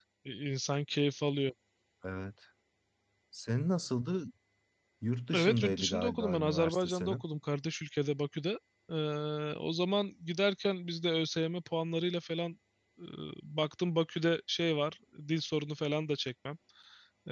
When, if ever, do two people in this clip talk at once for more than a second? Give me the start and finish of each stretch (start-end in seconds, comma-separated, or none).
5.3-7.2